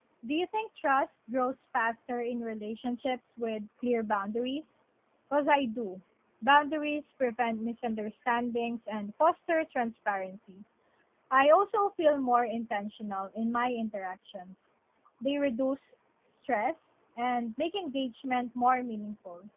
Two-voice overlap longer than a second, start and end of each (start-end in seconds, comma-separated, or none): none